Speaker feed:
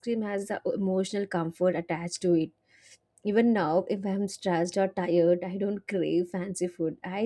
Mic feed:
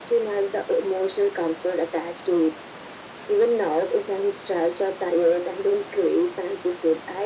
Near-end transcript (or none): none